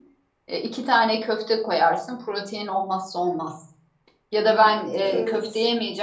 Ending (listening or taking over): listening